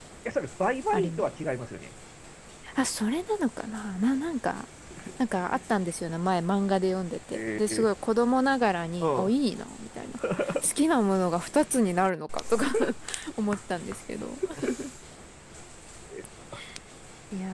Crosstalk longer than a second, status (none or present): none